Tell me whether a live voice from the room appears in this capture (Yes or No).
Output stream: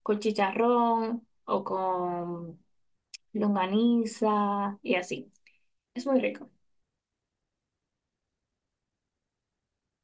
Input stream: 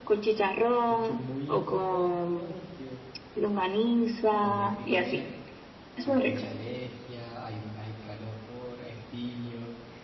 Yes